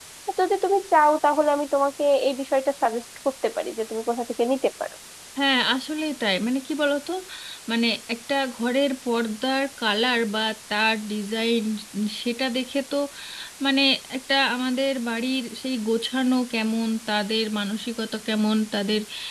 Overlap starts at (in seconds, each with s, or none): none